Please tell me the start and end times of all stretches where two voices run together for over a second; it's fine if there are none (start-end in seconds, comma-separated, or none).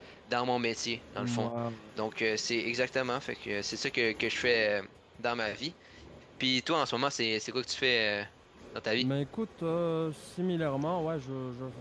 none